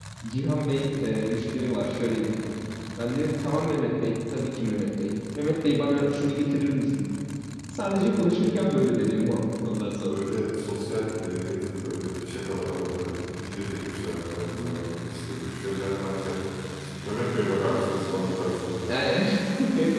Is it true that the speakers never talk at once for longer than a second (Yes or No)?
Yes